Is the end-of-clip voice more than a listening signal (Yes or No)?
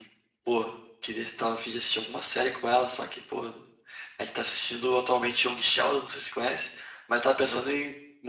No